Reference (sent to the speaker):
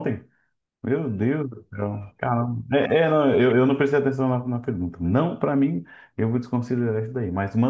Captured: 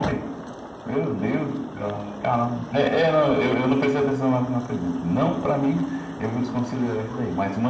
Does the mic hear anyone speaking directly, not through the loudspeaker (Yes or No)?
No